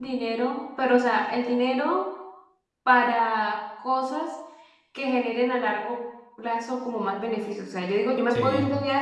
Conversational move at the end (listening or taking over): listening